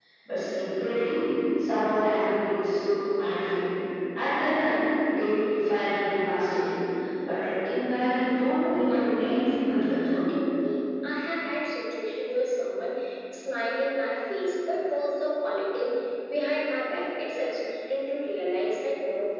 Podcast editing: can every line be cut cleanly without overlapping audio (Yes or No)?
No